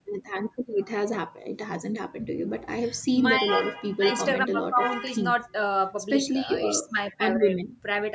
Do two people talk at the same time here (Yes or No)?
Yes